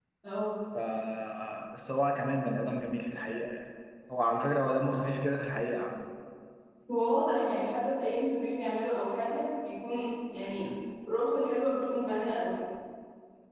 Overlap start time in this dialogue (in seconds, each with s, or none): none